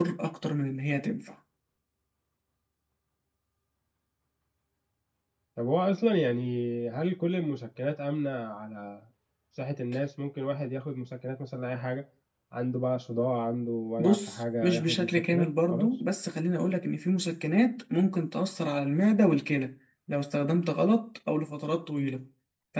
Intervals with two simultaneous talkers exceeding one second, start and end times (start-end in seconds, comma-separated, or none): 14.0-15.9